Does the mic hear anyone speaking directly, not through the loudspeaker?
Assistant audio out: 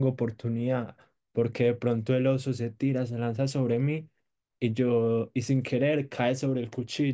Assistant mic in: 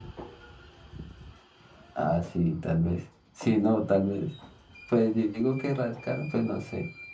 Yes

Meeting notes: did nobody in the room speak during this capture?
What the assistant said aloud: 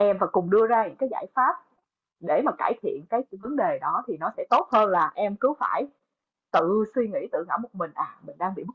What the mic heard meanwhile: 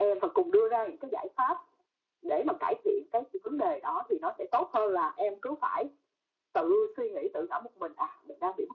Yes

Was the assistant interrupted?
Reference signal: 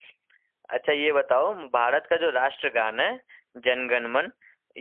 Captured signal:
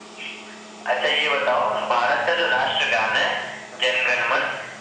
No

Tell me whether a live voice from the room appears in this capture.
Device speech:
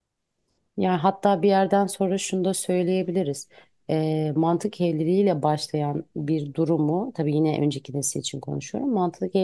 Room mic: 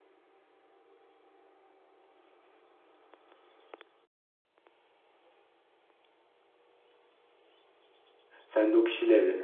Yes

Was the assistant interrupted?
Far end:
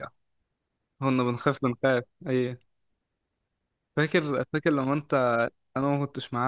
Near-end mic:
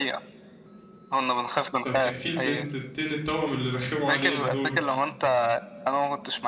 Yes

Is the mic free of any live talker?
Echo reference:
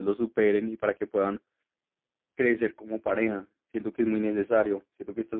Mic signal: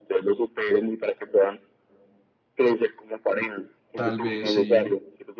No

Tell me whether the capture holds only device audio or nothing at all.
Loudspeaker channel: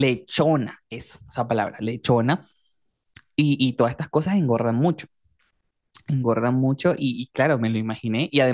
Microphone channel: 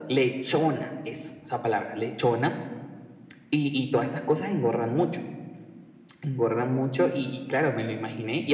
Yes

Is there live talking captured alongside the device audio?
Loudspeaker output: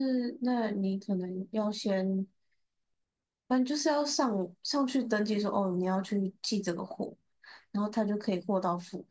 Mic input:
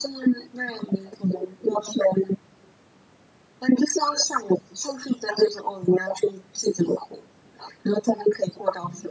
No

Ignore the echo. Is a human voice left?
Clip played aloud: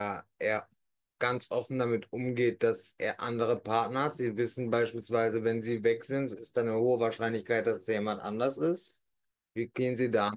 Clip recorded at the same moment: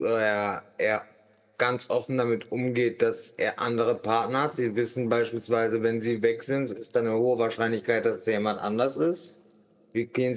No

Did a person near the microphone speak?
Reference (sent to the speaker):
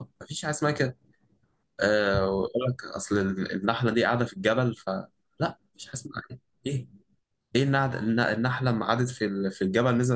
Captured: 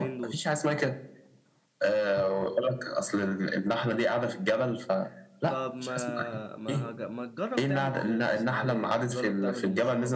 Yes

